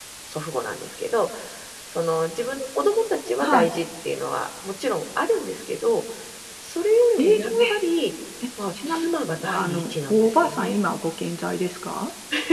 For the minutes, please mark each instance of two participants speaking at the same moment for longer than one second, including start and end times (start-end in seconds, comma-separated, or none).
9.6-10.8